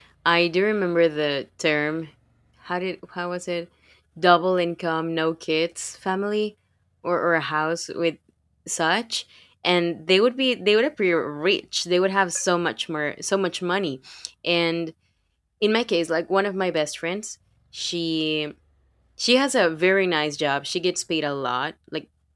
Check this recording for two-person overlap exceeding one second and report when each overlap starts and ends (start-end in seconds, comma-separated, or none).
none